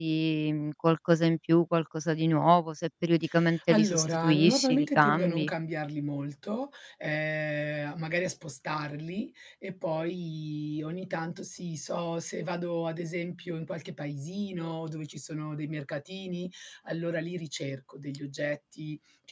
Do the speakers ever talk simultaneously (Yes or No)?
Yes